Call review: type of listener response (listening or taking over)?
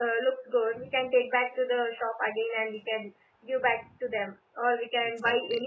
listening